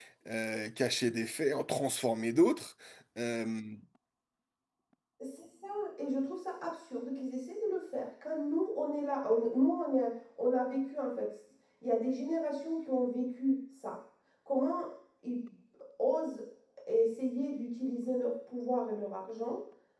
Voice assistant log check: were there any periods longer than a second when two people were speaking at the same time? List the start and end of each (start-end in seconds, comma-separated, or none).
none